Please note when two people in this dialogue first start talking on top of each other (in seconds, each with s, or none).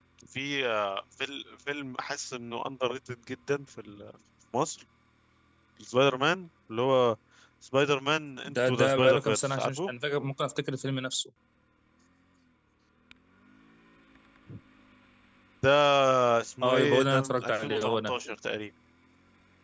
8.4 s